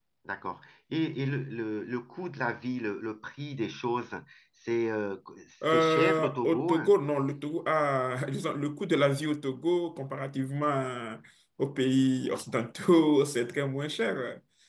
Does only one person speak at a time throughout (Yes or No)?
No